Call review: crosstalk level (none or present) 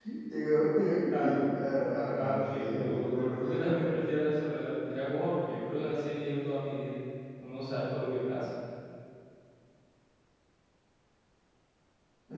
present